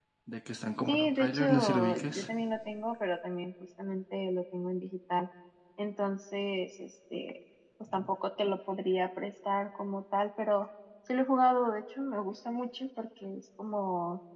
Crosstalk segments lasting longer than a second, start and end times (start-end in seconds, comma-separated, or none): 0.9-2.3